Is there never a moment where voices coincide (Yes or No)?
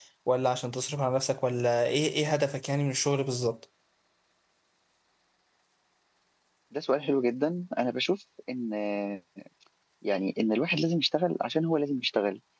Yes